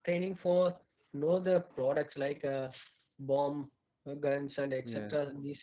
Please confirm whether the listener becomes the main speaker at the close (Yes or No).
No